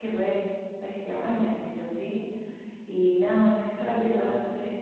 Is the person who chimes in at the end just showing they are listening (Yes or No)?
Yes